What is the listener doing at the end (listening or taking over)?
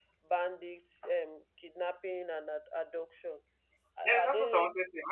taking over